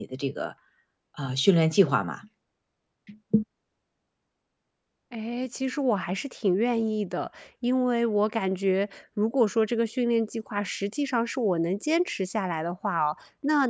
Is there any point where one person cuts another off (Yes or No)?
No